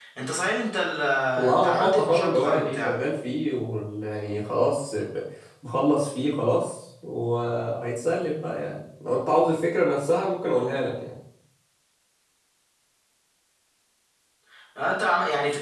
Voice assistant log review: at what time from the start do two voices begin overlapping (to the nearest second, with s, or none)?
2 s